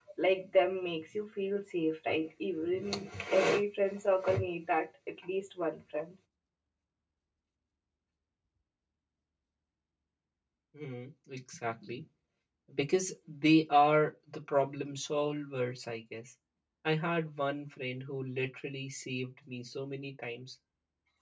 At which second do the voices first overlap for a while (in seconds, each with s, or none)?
none